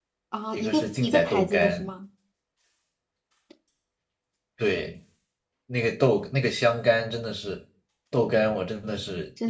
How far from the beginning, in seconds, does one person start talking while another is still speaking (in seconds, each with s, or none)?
0.6 s